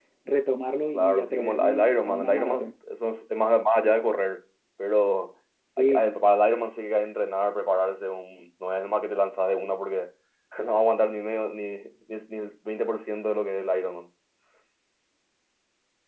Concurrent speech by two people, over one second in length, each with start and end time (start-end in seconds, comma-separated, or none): 0.9-2.7